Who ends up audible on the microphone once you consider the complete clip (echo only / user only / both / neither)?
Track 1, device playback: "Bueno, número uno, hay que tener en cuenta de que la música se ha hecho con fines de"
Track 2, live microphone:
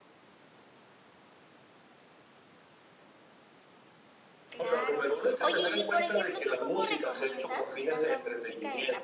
both